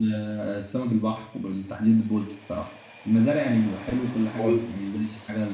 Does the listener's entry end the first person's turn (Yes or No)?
No